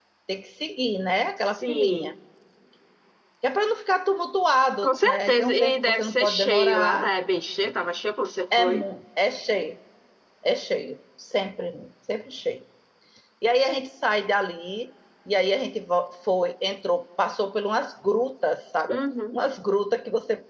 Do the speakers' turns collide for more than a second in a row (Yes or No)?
Yes